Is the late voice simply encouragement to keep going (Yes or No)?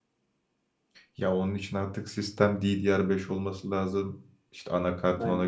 Yes